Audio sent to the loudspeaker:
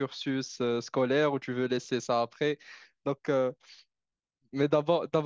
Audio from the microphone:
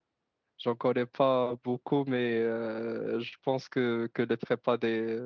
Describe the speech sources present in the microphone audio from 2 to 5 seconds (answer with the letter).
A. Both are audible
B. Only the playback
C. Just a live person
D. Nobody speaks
C